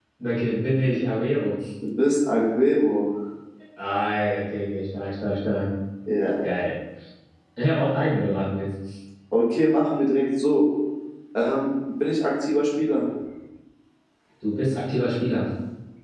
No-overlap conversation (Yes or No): Yes